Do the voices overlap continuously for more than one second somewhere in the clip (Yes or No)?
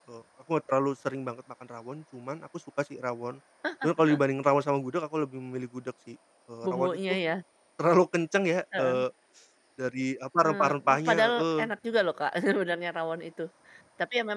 Yes